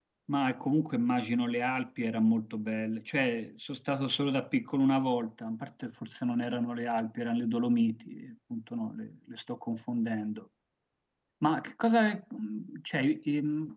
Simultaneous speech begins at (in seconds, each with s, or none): none